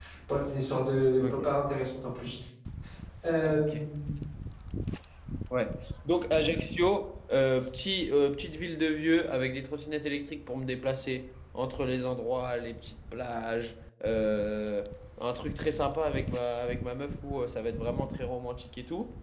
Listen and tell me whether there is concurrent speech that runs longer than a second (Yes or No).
No